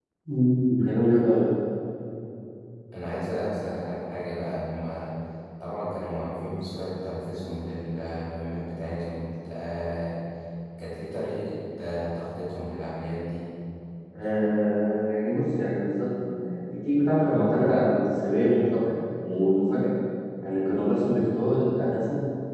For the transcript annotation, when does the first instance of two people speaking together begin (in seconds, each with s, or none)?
none